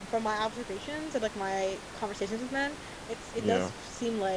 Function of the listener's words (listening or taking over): listening